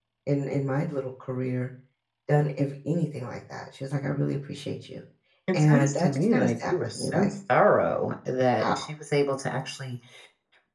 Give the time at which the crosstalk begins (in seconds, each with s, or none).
5.5 s